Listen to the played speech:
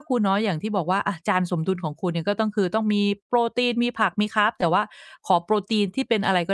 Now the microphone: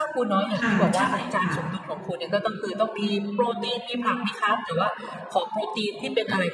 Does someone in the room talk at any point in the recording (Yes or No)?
Yes